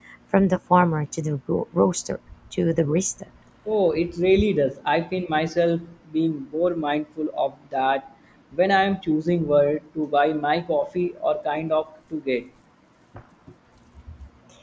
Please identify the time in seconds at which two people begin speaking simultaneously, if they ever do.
none

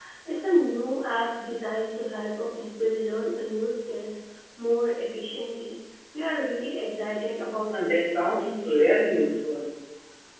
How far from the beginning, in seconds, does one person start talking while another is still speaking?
7.7 s

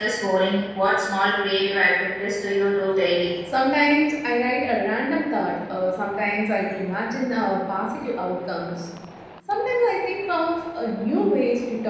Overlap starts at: none

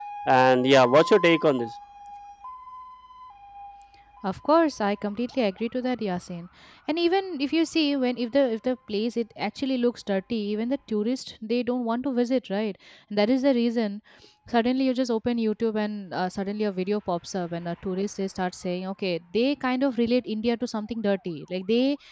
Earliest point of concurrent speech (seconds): none

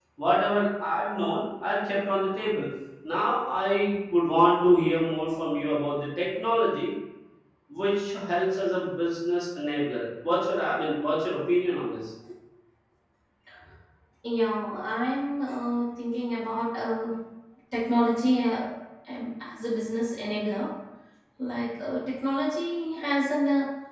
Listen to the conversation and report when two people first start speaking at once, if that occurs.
none

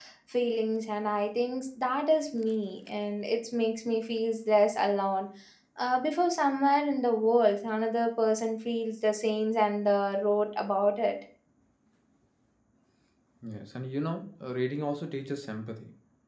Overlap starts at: none

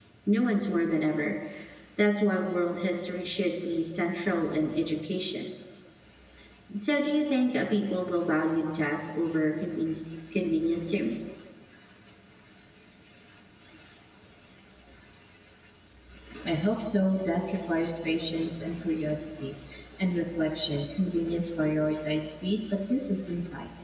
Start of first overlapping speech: none

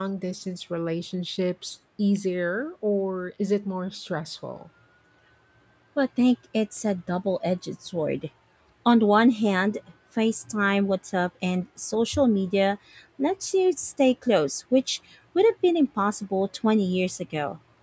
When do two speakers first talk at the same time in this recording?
none

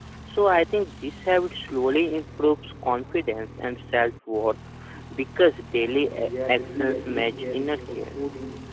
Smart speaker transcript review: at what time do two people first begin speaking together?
5.7 s

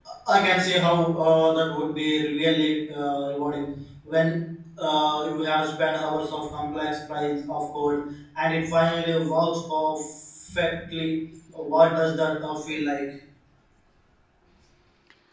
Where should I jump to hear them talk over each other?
none

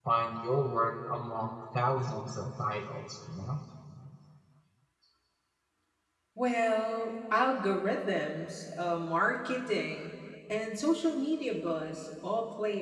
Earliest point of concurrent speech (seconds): none

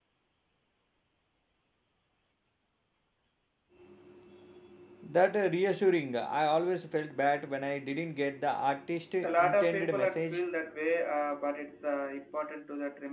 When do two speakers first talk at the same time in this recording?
9.2 s

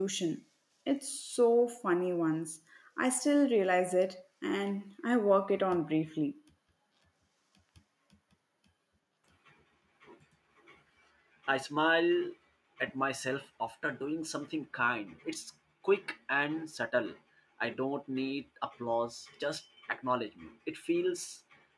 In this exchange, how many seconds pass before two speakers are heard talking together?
none

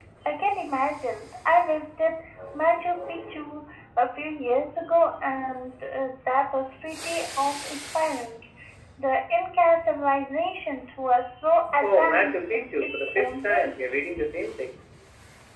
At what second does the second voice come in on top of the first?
11.8 s

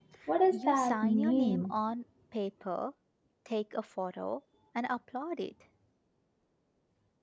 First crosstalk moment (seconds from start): 0.5 s

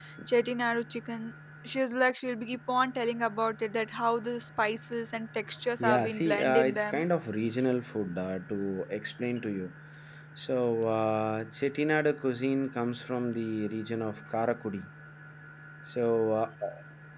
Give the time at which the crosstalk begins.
5.8 s

